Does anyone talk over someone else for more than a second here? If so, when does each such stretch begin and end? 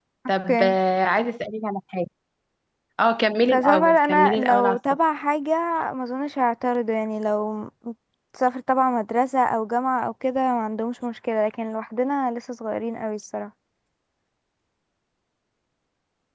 3.5-4.8

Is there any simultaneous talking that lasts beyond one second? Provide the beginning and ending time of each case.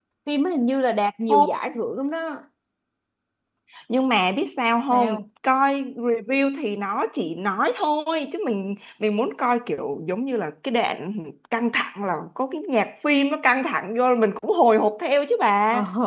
none

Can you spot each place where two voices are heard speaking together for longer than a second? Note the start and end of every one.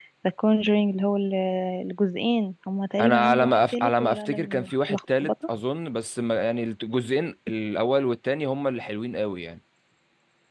3.0-5.3

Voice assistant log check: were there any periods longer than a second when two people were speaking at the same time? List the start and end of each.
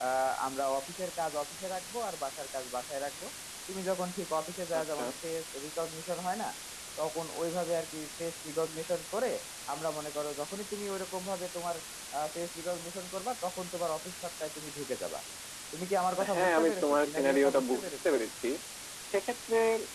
16.3-17.9

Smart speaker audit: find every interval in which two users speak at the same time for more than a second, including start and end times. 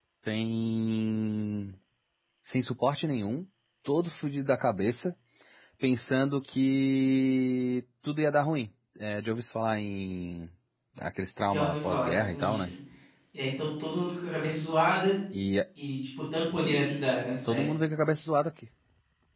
11.5-12.7

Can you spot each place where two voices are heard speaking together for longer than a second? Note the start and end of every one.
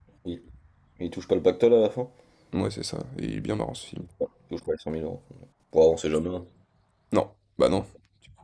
none

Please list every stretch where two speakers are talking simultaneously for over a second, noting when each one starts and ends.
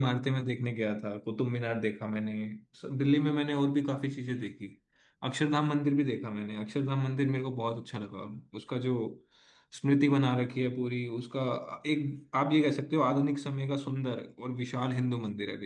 none

